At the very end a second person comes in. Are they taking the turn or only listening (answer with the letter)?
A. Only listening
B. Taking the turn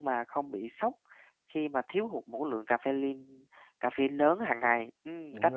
B